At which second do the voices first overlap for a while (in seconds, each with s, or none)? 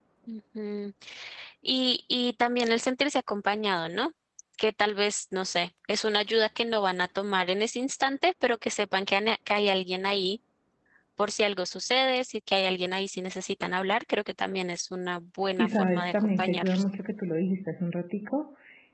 15.6 s